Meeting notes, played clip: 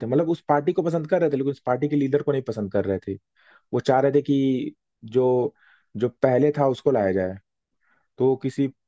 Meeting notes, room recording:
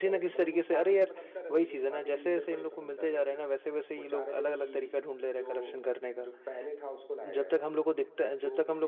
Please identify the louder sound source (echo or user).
user